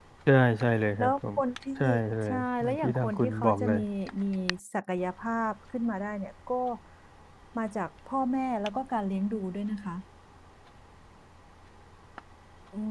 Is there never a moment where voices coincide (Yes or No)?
No